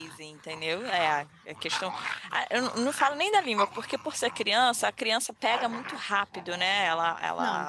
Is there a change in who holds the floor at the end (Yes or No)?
Yes